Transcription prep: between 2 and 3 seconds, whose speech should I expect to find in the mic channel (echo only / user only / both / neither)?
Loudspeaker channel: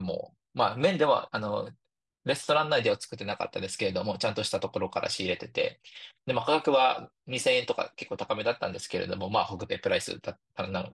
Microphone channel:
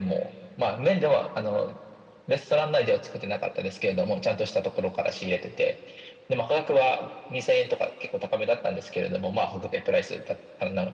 echo only